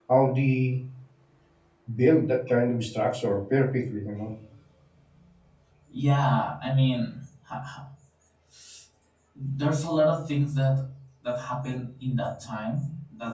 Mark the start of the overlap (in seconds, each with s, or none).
none